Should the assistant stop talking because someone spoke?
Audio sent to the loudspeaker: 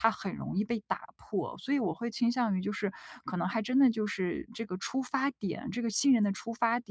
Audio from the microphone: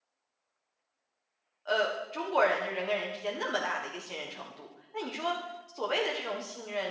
Yes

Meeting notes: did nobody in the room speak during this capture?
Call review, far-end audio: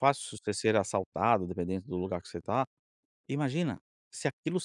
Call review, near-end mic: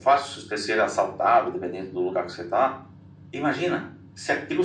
Yes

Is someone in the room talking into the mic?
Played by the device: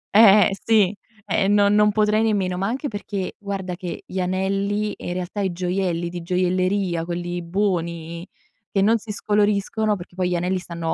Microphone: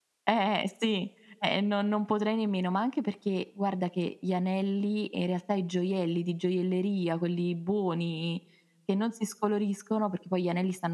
No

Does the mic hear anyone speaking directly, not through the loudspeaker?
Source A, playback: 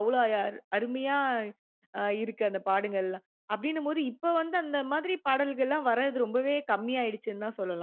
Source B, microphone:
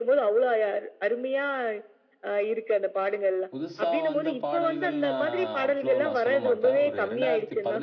Yes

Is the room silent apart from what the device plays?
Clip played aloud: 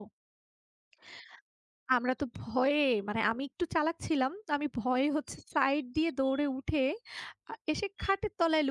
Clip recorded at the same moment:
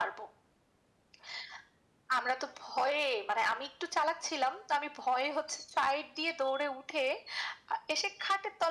Yes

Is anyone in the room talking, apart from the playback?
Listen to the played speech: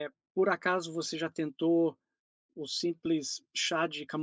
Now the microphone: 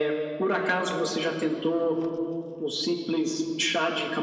Yes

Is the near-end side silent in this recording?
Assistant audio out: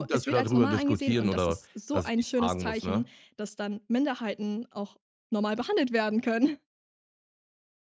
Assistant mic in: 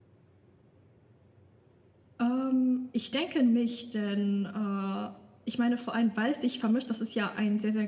No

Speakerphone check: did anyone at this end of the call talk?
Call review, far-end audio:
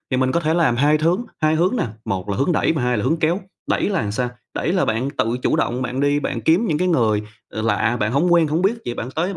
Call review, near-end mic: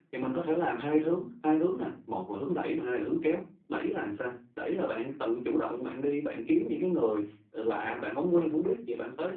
No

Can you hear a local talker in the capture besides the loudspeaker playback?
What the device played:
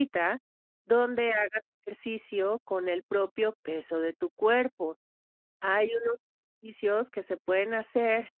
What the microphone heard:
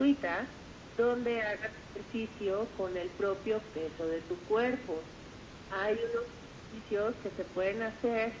No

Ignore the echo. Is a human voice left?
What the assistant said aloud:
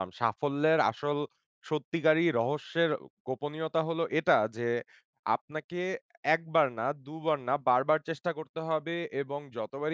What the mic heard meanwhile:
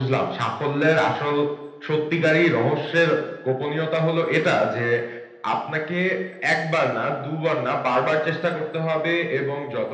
No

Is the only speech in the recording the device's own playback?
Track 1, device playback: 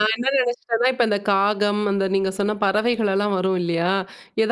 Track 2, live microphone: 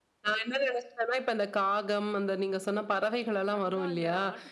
No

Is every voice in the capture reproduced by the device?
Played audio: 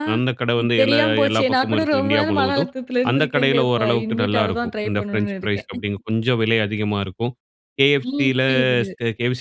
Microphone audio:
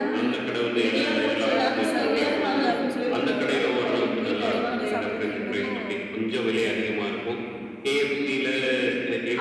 No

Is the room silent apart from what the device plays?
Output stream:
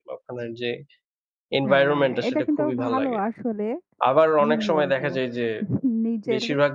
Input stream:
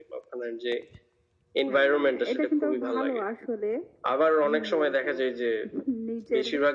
Yes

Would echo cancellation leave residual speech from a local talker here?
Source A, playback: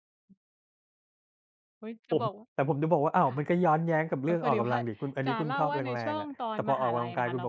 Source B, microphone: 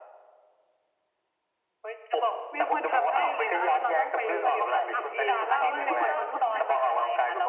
Yes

